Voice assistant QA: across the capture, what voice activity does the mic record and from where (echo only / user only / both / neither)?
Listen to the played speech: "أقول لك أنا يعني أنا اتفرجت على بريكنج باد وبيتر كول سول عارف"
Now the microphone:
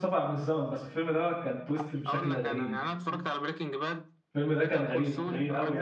both